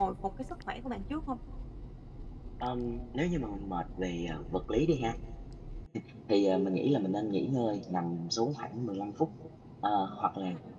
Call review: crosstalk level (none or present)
none